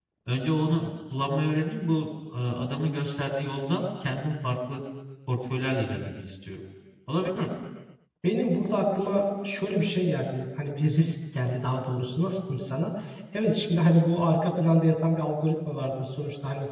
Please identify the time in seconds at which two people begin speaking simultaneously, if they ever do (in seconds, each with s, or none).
none